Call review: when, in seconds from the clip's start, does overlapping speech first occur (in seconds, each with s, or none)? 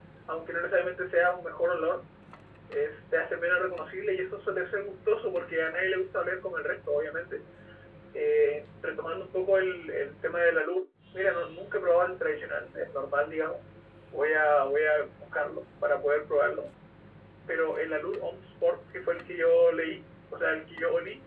none